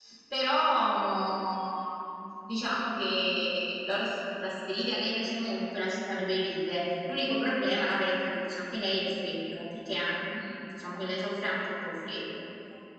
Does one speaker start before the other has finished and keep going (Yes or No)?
No